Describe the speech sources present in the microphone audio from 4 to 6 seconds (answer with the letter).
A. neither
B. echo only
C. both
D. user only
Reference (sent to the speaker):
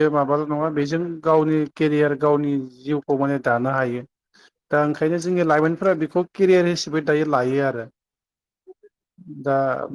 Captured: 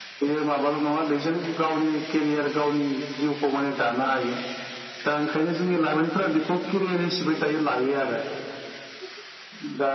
B